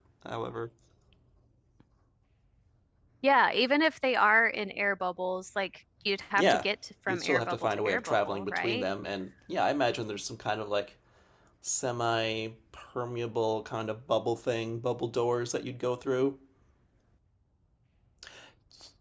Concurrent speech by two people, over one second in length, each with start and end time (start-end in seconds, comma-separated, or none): 7.1-8.8